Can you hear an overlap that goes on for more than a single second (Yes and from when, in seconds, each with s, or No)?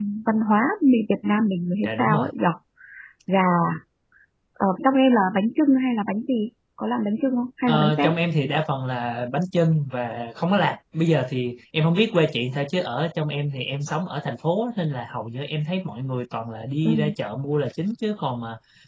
No